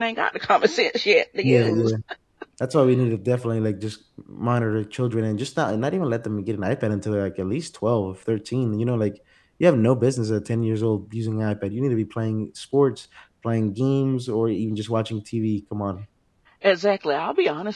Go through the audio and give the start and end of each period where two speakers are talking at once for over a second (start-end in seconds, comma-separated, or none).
none